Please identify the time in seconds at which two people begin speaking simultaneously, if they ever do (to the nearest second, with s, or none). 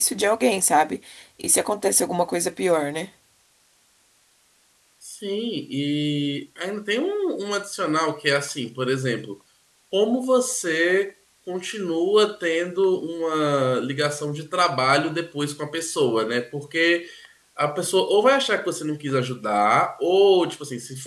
none